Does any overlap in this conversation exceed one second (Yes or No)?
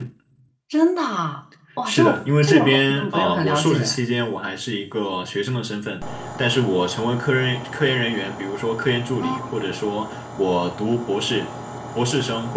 Yes